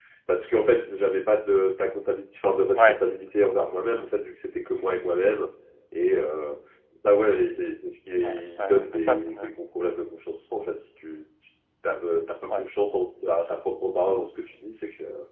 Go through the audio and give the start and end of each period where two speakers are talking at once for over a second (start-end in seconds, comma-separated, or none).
8.2-9.5